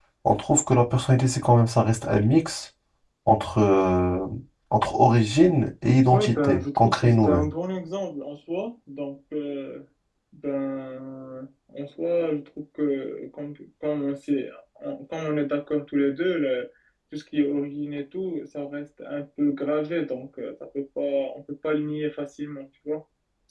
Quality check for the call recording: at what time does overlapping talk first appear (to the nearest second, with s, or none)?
6 s